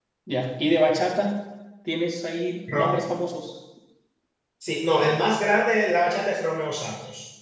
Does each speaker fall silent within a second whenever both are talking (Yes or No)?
Yes